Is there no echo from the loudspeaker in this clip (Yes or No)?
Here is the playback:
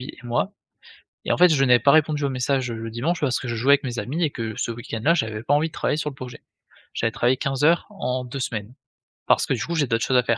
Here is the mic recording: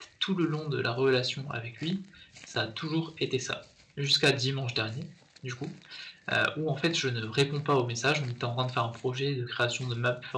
Yes